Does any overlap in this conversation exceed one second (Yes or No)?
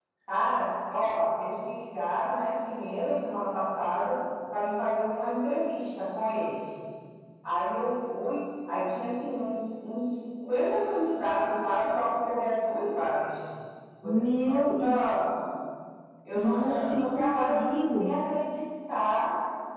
Yes